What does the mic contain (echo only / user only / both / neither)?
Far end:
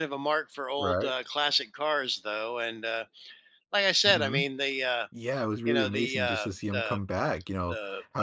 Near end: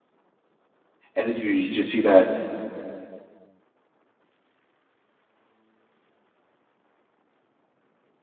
user only